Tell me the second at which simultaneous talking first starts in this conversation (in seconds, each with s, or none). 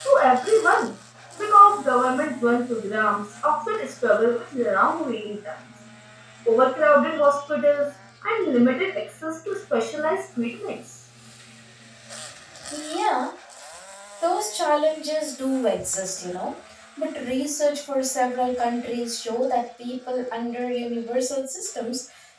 none